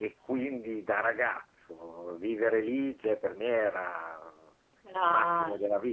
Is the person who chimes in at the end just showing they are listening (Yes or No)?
Yes